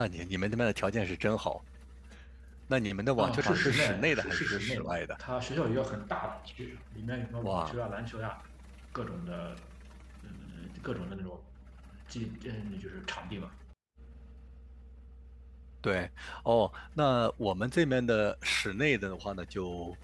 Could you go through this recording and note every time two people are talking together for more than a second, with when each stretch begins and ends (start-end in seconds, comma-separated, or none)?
3.2-5.0